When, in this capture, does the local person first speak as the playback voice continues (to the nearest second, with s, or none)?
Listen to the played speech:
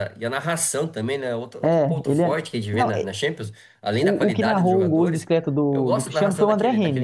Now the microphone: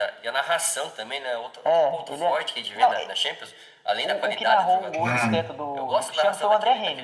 5 s